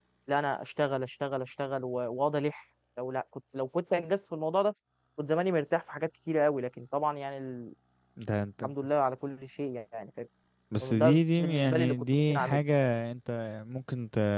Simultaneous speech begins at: 10.7 s

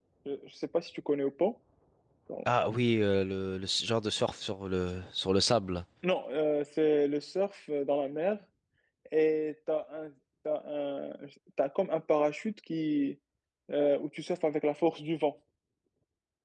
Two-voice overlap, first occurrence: none

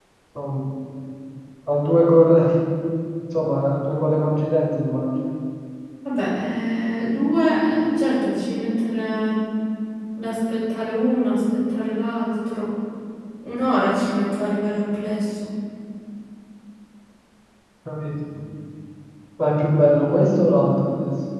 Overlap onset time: none

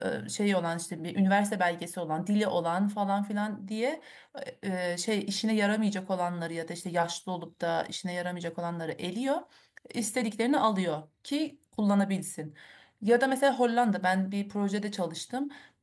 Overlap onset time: none

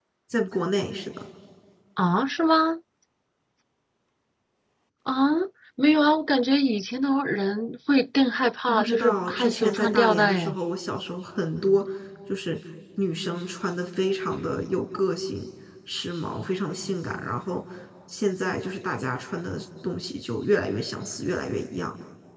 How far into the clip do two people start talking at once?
8.7 s

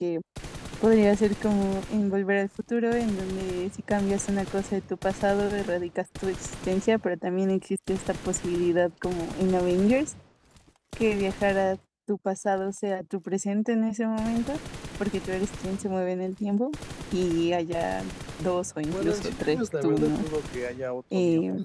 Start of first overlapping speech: 18.9 s

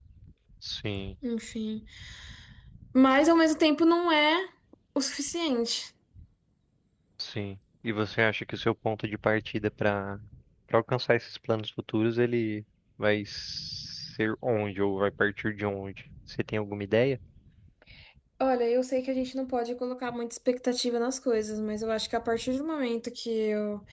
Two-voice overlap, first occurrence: none

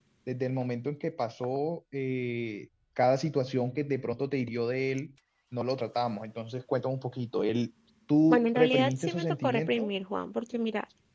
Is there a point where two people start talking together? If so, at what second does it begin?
8.3 s

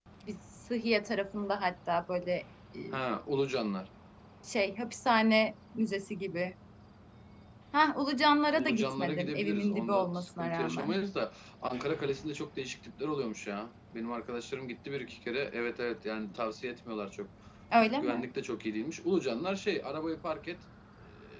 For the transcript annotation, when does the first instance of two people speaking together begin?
8.6 s

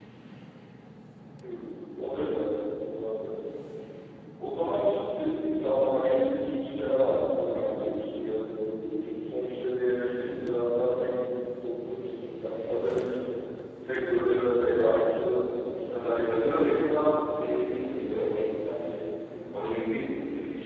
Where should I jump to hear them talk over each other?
16.0 s

